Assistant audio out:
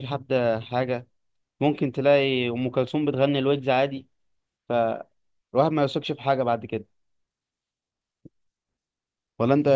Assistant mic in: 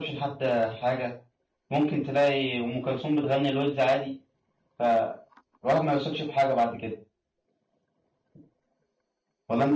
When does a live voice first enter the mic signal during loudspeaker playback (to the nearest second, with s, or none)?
none